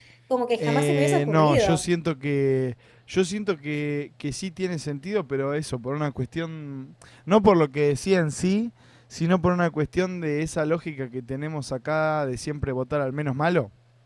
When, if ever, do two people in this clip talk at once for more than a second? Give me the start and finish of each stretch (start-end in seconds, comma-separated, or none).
0.6-1.8